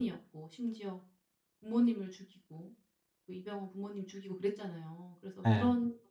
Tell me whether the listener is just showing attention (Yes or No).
Yes